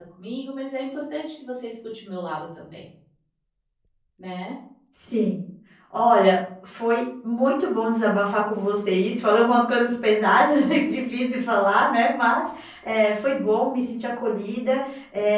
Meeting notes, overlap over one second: none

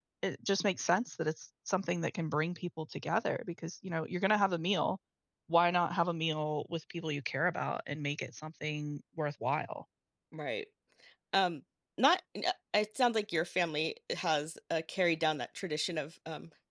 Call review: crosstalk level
none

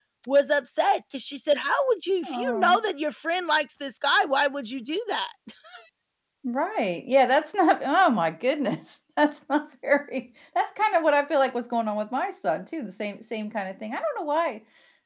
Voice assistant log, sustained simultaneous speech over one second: none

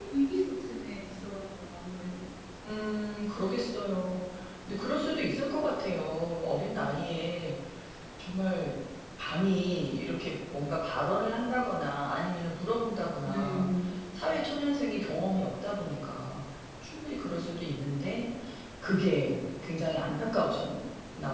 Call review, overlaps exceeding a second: none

